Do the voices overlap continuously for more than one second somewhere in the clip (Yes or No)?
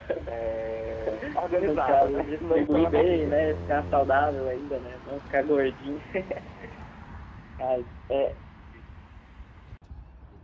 Yes